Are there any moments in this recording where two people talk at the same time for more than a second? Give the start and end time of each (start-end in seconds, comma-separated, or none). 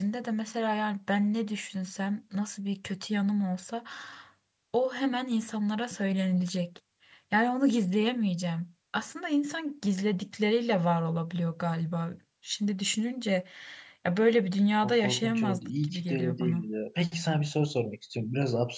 14.8-16.7